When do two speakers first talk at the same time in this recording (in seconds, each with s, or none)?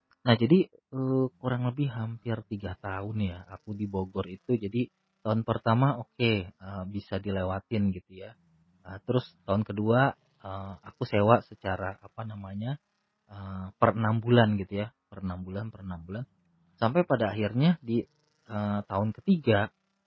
none